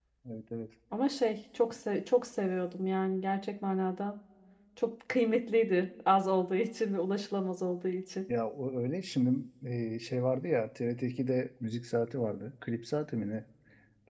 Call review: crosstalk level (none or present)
none